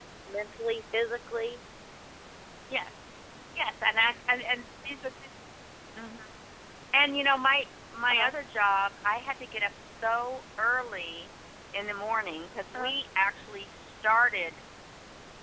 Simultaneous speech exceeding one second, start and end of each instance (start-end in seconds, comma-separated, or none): none